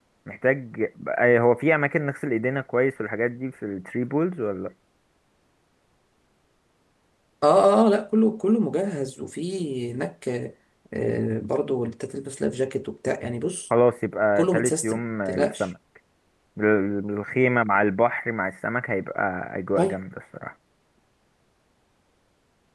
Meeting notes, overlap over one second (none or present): present